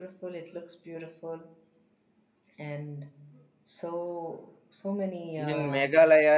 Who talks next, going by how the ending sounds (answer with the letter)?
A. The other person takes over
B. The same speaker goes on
A